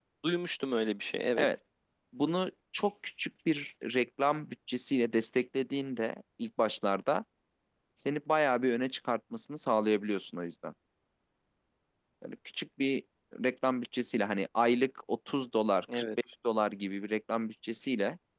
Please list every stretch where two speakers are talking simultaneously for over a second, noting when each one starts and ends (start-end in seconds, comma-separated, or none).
none